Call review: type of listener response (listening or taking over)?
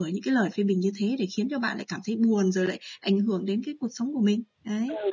taking over